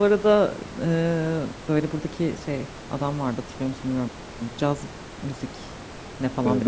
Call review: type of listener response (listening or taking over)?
taking over